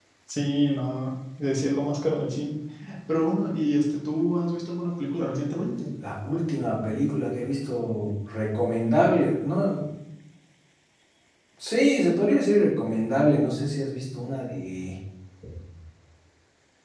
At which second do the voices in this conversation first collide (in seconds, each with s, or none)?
none